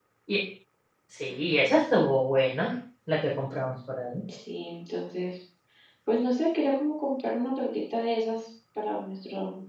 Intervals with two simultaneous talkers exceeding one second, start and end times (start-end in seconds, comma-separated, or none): none